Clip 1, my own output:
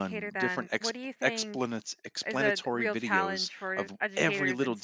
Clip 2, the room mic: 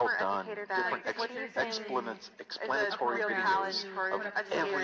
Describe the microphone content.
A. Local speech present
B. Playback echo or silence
A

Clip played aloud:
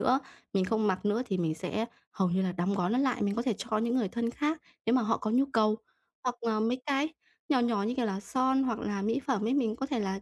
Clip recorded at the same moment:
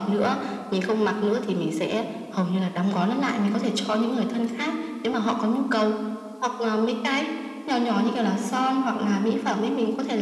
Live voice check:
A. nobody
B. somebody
A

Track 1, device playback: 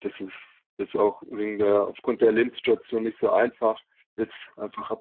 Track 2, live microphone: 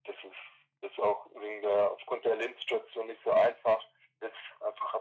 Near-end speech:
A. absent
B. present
A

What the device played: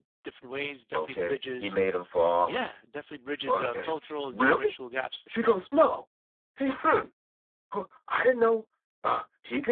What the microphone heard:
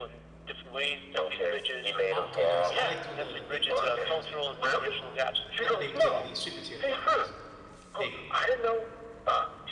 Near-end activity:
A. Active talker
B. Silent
A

